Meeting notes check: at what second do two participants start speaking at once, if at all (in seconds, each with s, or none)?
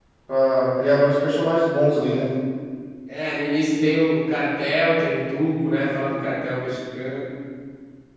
none